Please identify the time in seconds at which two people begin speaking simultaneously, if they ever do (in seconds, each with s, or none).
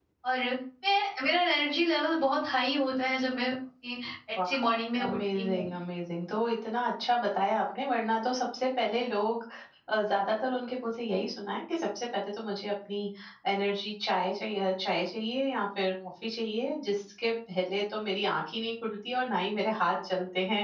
4.4 s